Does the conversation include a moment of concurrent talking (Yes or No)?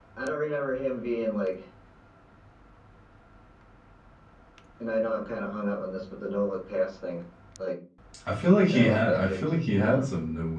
Yes